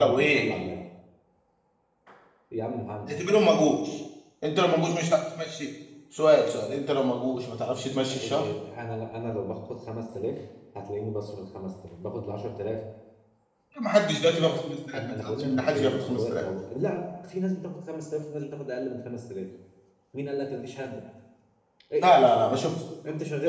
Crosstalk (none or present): present